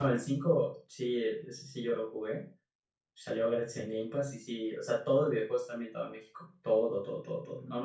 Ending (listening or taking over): listening